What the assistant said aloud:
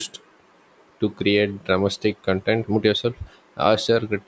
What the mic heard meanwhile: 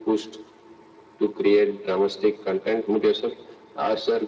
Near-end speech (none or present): none